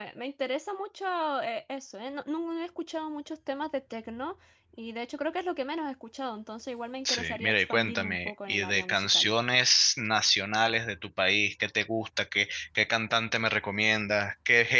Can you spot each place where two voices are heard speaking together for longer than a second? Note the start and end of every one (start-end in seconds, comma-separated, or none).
7.0-9.3